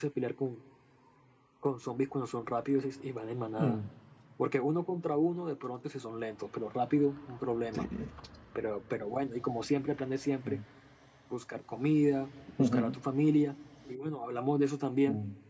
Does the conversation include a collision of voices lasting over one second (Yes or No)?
No